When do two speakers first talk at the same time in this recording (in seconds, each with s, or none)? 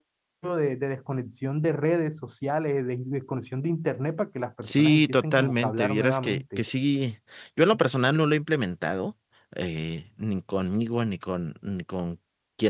4.7 s